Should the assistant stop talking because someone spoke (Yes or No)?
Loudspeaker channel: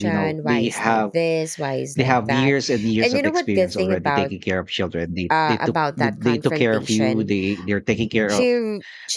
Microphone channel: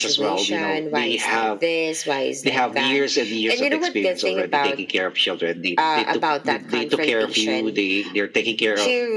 No